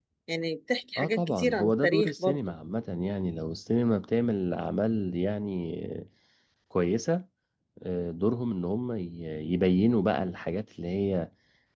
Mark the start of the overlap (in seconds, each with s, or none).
1.0 s